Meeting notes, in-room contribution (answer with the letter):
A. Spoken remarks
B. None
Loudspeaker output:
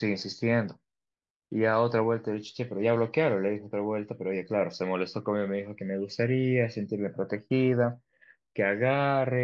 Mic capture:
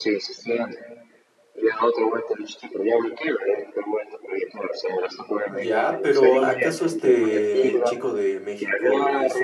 A